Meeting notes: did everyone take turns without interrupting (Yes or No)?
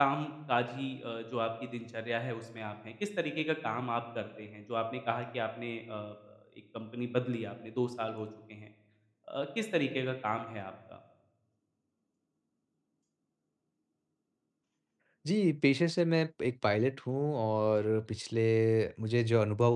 Yes